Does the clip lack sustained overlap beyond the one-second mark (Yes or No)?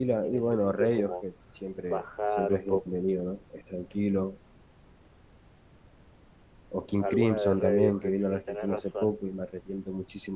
No